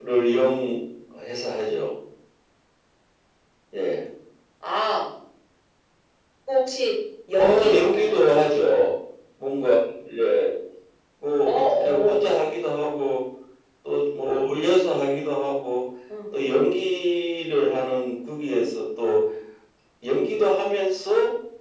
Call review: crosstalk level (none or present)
present